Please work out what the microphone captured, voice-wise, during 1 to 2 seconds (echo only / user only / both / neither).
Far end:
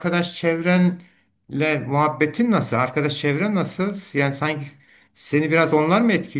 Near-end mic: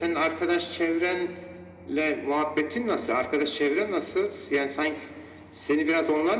echo only